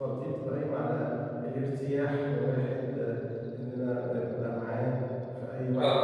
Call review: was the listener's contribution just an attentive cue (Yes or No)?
Yes